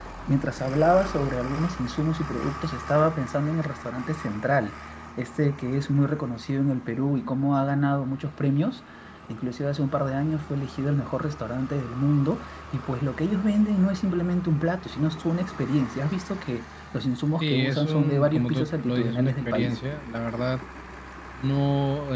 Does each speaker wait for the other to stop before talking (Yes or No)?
No